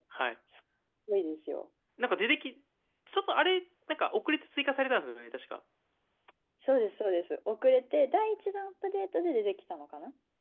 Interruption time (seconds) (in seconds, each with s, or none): none